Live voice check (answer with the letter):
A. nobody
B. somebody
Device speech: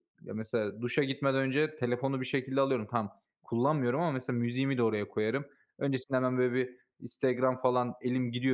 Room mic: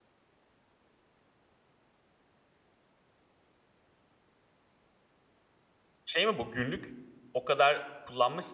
B